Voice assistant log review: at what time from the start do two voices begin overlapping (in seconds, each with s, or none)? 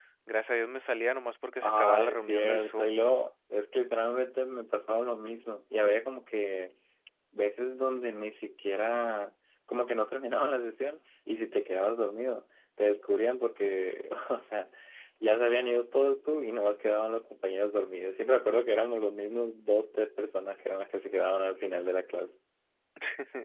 1.6 s